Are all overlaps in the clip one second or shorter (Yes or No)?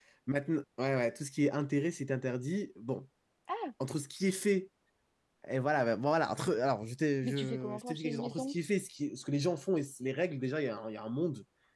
No